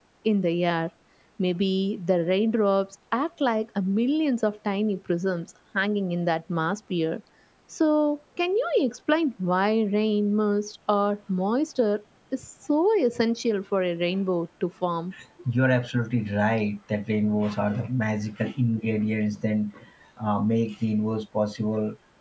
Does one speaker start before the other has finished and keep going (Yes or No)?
No